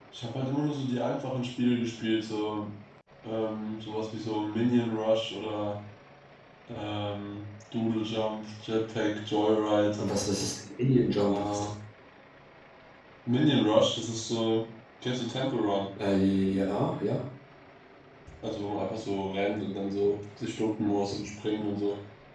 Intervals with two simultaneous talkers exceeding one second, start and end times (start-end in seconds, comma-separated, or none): none